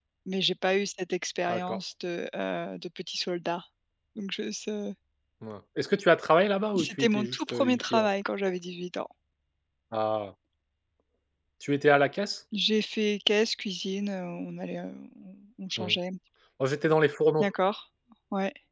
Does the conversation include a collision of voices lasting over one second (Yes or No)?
Yes